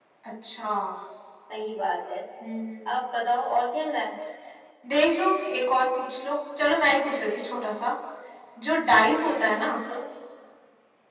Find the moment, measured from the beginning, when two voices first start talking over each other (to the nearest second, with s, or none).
none